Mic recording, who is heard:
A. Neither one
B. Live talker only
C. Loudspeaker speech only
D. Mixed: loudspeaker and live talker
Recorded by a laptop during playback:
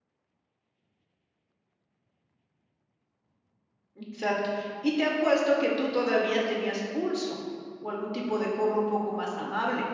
B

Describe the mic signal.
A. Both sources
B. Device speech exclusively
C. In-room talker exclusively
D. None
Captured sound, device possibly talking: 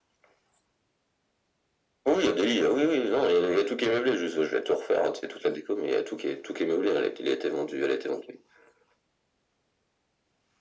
B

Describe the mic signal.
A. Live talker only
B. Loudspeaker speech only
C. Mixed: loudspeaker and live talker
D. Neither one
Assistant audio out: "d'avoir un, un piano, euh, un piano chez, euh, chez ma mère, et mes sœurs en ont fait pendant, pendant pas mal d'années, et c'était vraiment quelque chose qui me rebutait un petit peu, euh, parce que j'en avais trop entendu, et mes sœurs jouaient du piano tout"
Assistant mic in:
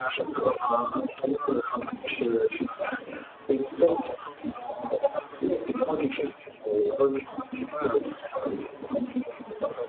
B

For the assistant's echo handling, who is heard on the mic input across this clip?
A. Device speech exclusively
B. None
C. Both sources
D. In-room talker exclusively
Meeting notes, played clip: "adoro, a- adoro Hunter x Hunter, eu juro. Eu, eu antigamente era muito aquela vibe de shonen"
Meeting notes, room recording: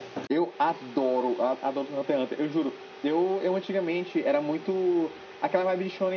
A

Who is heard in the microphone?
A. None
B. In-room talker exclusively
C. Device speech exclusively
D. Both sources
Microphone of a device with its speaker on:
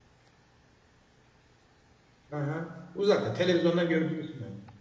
B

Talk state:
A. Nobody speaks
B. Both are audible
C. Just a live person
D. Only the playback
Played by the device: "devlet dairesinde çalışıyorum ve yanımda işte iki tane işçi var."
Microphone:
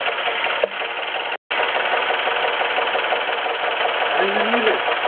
C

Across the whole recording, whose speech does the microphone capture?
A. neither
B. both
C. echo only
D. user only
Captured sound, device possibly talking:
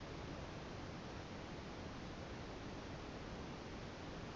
A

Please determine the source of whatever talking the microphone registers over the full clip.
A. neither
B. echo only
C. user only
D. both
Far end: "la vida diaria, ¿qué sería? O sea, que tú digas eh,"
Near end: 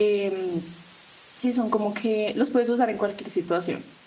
C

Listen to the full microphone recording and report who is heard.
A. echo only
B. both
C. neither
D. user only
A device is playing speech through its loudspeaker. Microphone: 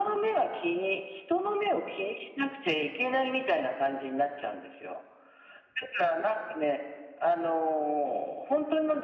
A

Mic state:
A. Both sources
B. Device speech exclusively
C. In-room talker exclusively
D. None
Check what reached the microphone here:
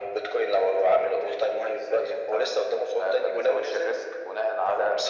B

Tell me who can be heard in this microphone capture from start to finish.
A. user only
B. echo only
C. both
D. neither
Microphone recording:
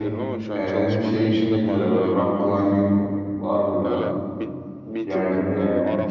C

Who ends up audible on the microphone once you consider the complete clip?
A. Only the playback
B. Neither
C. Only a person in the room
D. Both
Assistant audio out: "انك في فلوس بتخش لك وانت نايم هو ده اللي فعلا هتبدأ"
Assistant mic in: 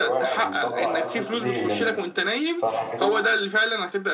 D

